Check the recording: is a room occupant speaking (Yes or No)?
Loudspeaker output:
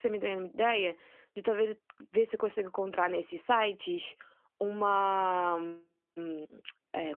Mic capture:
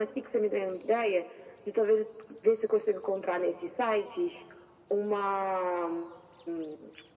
No